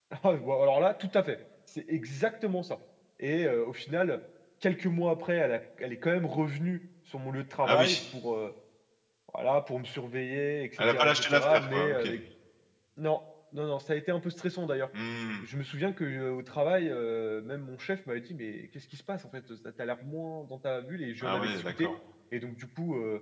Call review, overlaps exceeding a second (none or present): present